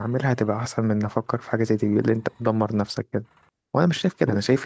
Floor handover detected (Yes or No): No